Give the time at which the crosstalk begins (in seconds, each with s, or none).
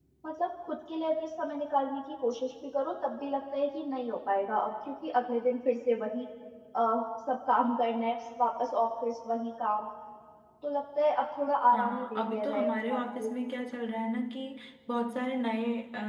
11.7 s